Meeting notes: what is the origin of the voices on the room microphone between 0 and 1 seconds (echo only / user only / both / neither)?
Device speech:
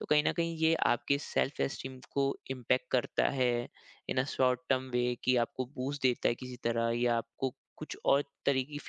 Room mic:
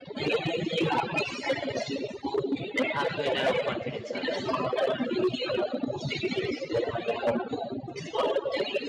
echo only